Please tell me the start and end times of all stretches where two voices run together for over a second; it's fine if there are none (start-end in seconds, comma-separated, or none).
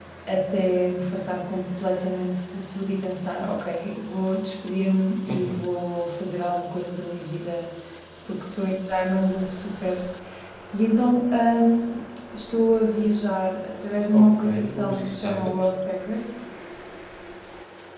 14.1-15.5